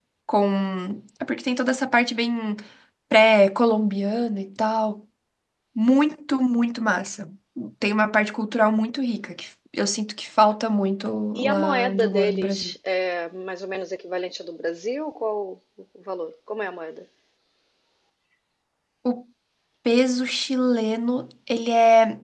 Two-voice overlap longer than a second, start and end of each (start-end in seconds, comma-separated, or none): 11.4-12.7